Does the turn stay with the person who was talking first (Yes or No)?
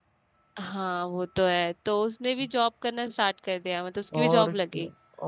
No